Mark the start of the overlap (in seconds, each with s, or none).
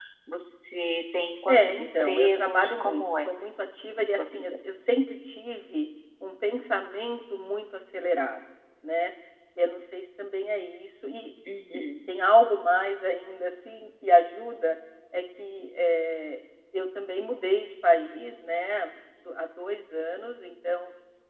1.5 s